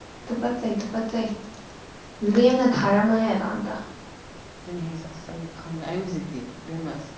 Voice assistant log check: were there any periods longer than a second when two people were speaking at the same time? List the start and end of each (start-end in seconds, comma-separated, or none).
none